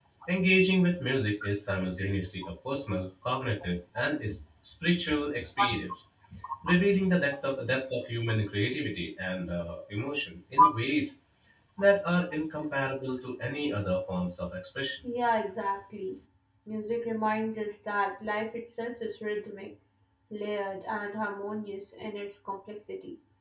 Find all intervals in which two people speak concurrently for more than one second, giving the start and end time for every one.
none

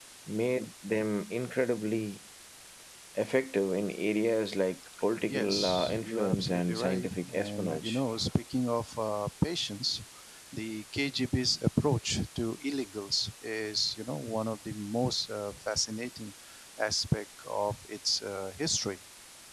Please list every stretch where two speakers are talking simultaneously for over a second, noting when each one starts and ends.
5.2-8.0

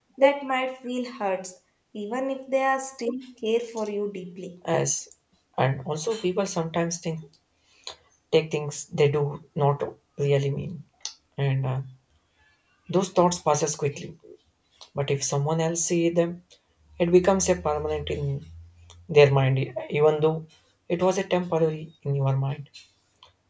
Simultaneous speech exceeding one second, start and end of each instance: none

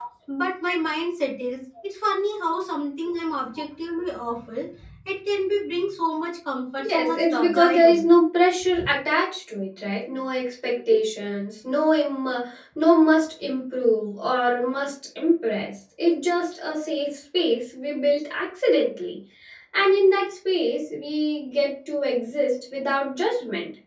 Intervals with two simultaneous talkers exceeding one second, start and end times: 6.9-8.1

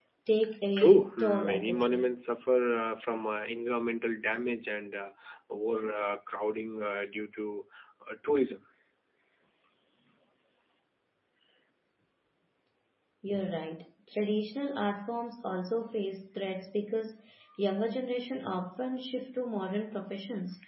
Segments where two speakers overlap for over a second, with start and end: 0.8-2.1

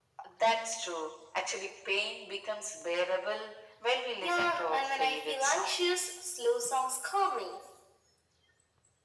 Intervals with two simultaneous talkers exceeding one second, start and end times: 4.2-6.1

